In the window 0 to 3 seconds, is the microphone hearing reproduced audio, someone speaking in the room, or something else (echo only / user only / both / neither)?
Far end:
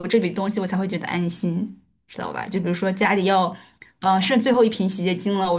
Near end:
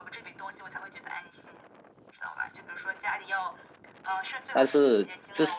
echo only